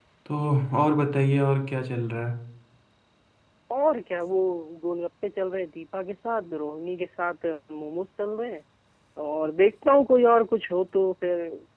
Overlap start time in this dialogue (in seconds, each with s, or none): none